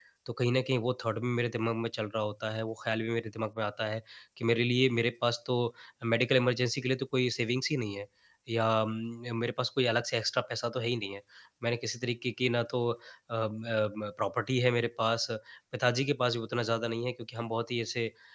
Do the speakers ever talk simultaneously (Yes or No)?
No